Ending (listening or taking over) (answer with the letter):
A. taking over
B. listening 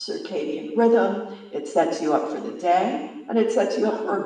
B